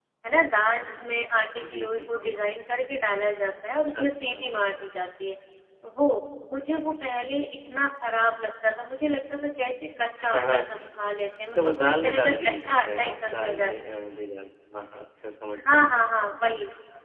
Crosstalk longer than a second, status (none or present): present